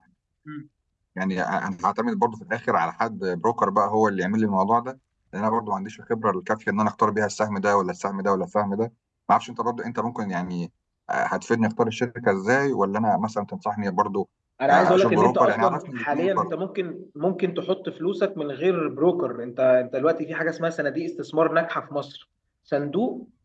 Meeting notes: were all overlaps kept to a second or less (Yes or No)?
No